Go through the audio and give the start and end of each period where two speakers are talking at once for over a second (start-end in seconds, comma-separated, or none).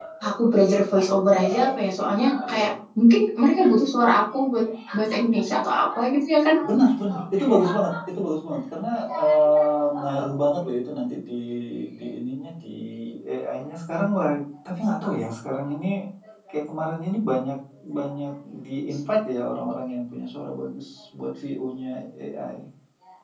none